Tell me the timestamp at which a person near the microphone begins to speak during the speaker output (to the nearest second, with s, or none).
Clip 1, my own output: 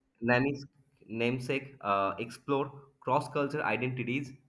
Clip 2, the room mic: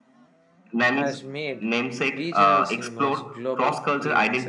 1 s